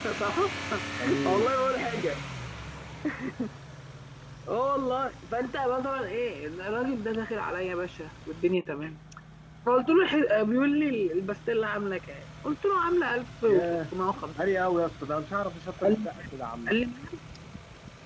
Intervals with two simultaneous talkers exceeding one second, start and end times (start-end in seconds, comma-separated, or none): none